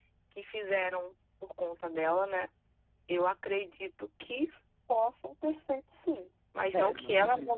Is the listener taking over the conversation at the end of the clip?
Yes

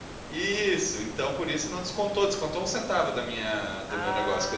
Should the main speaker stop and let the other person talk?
Yes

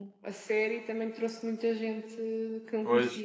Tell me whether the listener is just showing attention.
No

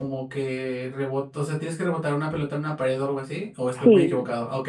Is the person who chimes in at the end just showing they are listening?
No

